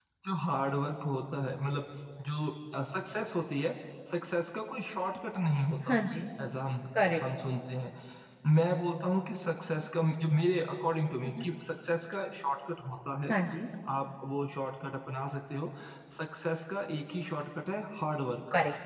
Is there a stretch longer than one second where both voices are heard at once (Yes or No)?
No